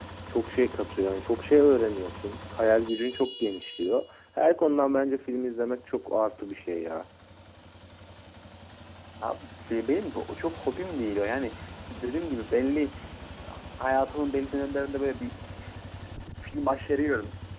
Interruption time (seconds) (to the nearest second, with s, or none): none